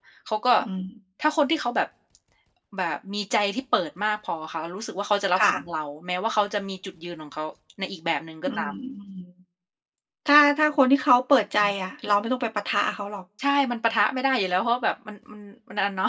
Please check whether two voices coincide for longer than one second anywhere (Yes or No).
No